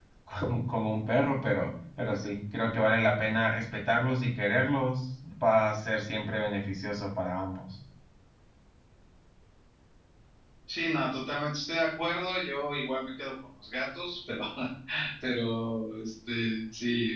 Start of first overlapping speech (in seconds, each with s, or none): none